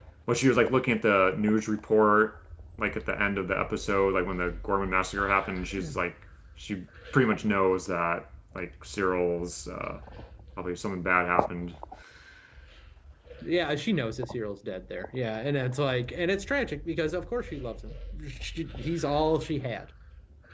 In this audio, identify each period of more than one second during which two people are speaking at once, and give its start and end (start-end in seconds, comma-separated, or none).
none